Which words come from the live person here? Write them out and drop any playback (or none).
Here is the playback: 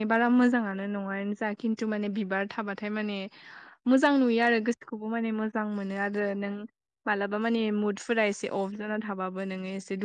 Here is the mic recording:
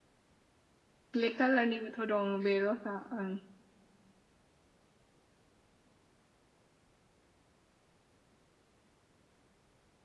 ब्लेक कालारनिबोथ' दं बे रस आ ओं